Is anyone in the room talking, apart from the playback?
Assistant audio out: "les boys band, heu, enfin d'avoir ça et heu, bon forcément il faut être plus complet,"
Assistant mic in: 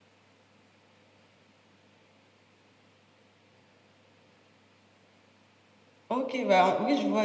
Yes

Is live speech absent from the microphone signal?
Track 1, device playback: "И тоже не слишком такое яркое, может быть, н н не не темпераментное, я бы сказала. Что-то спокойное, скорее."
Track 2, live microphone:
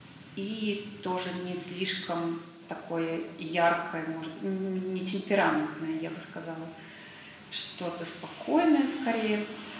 Yes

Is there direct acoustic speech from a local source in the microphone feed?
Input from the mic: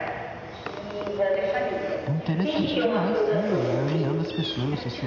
Yes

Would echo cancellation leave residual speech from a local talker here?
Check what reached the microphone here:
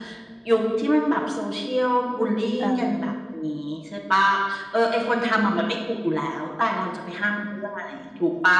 Yes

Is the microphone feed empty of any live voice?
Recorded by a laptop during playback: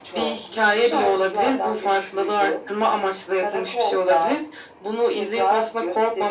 Yes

